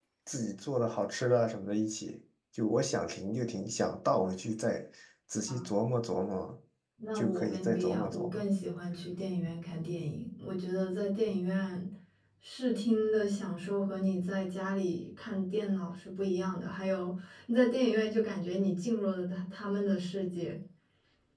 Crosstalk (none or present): present